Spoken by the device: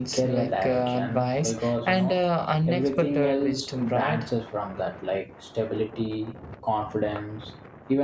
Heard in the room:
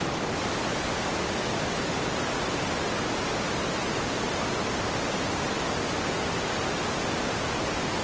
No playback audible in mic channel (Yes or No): Yes